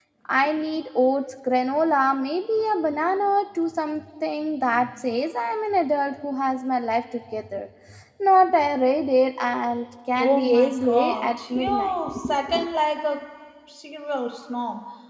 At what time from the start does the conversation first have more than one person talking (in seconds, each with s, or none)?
10.2 s